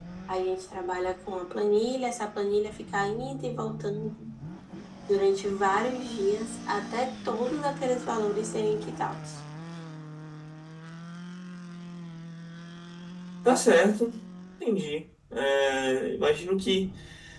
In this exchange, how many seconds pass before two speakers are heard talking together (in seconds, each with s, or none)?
none